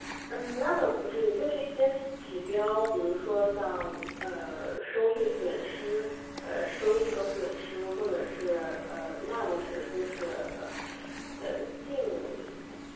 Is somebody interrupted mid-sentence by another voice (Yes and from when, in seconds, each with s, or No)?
No